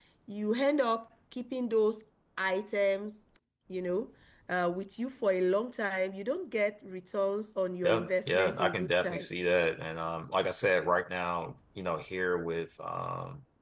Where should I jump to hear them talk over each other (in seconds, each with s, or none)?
7.8 s